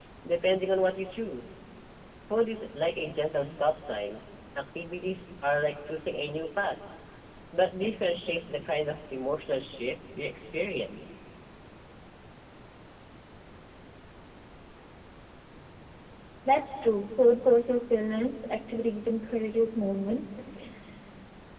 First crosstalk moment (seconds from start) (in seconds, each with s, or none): none